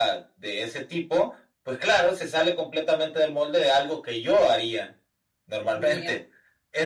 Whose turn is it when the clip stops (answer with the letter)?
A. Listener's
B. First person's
B